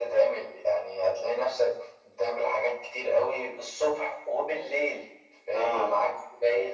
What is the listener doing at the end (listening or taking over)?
listening